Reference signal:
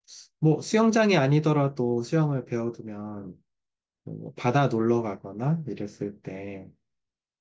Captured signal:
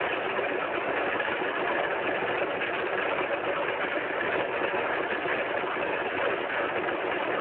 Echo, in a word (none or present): none